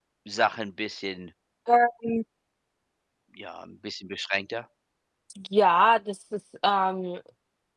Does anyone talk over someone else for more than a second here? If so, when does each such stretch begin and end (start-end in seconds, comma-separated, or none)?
none